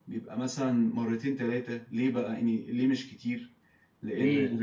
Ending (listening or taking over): listening